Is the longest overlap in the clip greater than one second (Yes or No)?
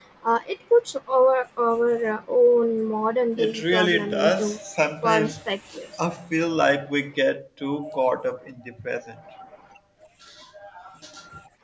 Yes